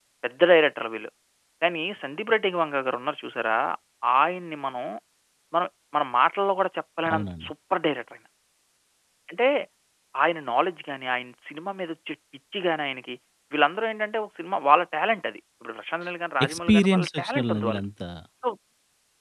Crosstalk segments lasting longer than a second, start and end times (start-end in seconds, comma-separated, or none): 16.4-17.8